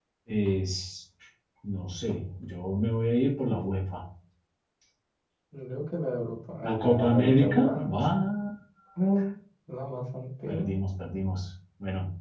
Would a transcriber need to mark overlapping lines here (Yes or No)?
Yes